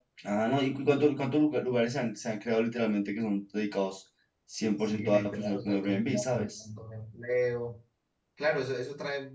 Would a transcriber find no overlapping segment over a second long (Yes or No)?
No